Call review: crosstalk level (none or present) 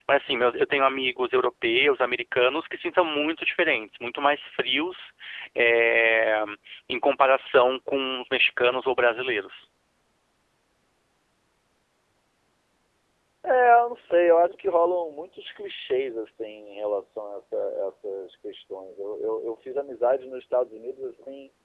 none